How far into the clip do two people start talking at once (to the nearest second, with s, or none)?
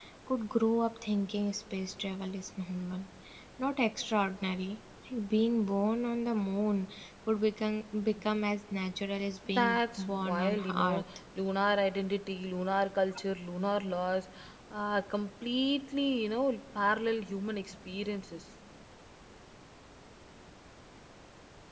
9 s